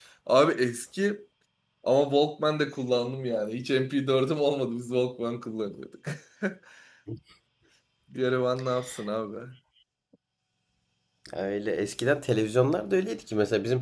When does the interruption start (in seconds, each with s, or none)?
none